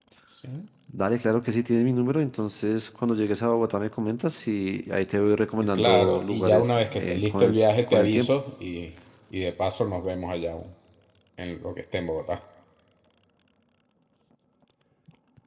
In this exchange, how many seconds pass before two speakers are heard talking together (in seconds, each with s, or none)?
5.6 s